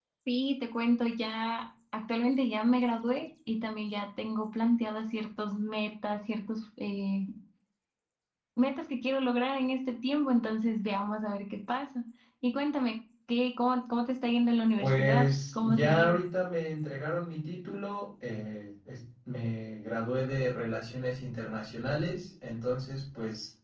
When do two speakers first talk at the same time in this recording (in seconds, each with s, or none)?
14.8 s